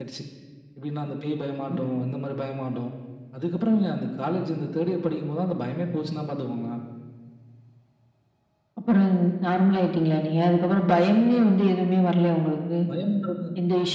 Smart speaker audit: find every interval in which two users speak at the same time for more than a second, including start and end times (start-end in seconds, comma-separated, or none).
none